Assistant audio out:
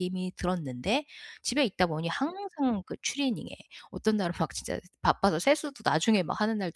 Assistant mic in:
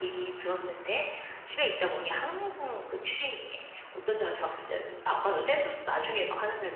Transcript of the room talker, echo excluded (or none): none